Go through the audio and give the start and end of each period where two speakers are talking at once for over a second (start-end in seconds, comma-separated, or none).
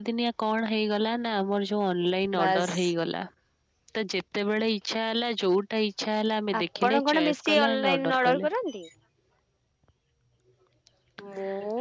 6.6-8.5